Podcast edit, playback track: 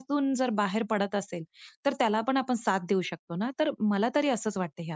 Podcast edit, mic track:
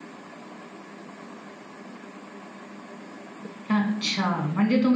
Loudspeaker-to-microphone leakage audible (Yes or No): No